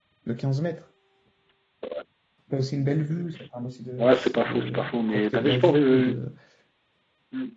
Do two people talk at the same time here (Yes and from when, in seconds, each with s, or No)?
Yes, from 4.0 s